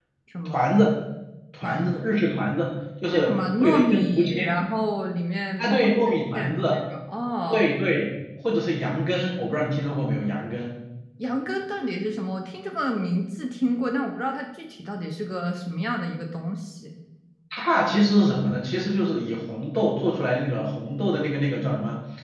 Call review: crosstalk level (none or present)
present